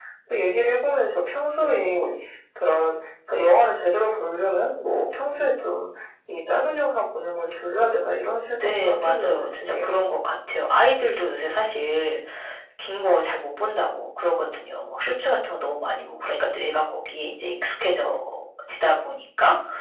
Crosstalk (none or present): present